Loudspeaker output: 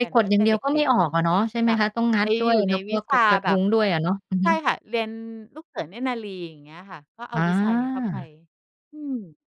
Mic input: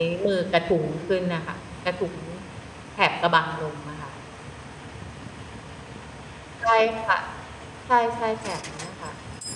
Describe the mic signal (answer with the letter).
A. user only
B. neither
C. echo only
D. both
A